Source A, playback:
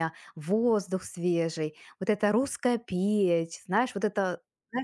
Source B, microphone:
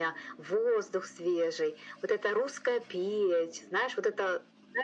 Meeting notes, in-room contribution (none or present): none